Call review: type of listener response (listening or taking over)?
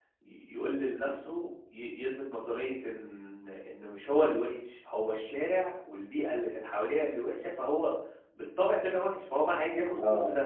listening